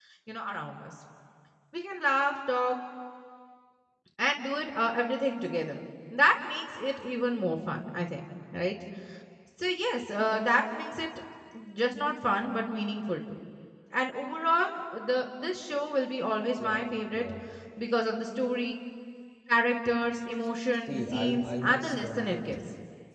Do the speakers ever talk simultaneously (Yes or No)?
Yes